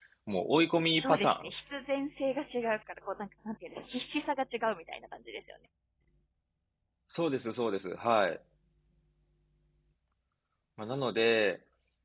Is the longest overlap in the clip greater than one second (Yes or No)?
No